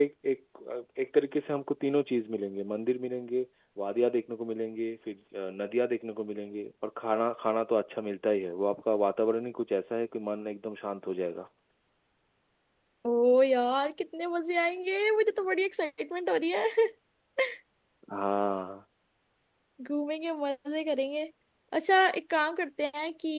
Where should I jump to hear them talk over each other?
none

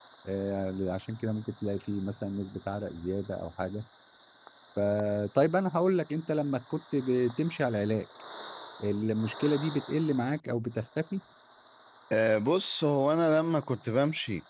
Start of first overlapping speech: none

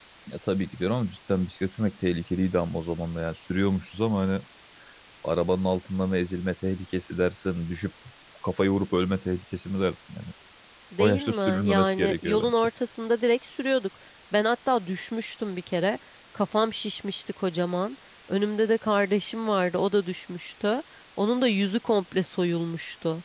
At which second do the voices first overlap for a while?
11.0 s

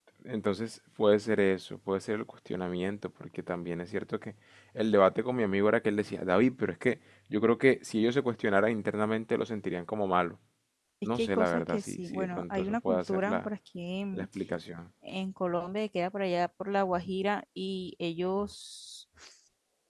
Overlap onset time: 11.2 s

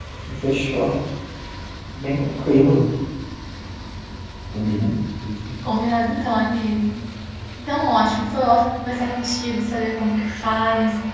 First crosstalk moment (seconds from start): none

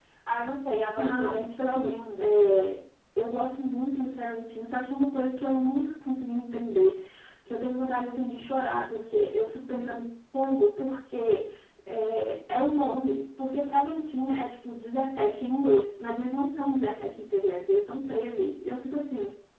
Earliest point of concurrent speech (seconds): 1.0 s

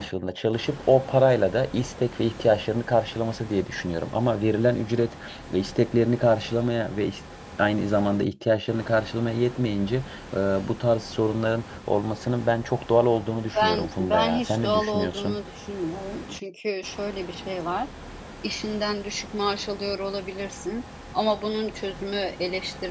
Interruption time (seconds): 13.6 s

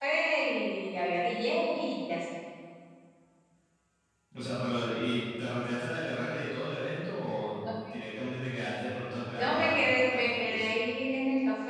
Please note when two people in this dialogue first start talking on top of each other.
9.3 s

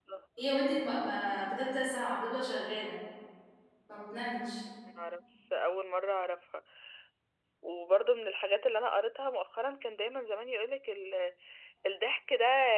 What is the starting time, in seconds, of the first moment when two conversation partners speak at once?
none

